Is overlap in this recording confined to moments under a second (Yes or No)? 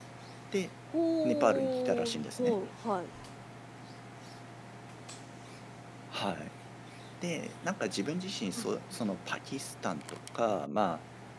No